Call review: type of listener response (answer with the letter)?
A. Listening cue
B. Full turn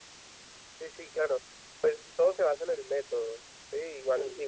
A